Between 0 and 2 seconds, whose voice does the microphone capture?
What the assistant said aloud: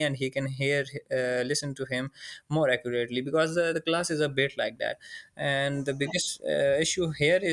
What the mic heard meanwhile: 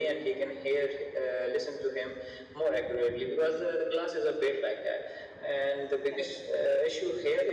echo only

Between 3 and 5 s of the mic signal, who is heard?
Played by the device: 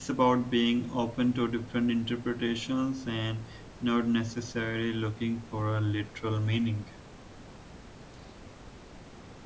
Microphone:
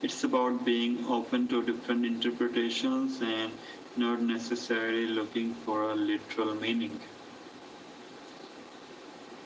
echo only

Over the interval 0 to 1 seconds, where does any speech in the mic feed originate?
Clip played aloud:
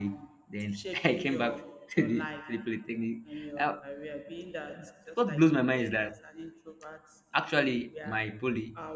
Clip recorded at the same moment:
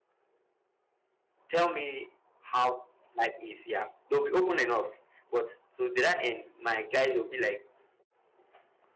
neither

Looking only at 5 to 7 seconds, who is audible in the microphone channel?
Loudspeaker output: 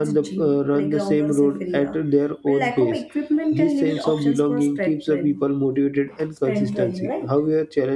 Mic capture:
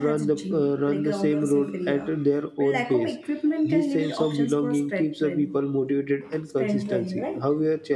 echo only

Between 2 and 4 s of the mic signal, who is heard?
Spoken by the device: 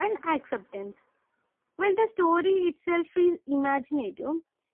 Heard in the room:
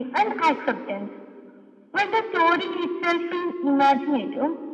echo only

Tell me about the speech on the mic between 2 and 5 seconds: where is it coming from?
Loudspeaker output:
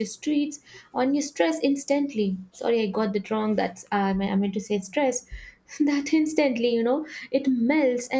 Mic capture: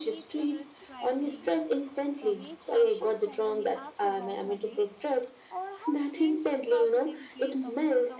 both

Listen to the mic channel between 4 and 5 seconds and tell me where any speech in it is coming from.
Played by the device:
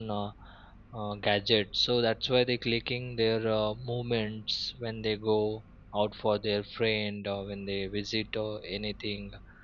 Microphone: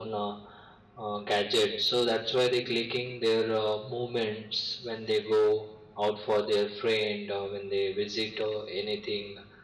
echo only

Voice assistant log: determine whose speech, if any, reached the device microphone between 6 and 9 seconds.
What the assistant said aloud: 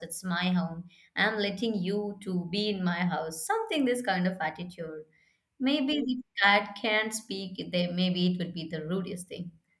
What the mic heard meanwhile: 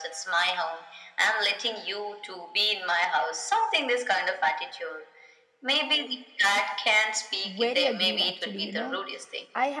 both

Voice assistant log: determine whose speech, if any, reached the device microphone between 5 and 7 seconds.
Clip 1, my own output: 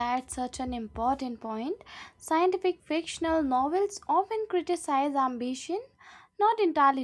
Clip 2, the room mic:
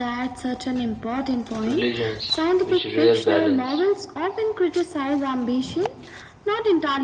echo only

